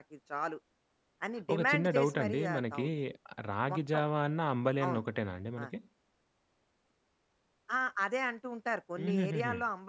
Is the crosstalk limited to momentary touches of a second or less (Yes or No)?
No